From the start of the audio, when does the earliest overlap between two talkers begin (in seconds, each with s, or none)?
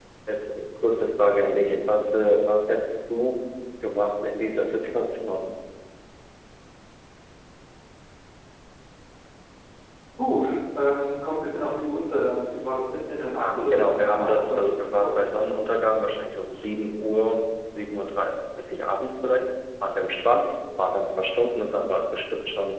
13.4 s